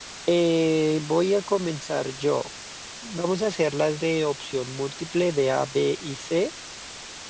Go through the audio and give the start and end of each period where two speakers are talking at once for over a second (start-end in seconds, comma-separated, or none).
none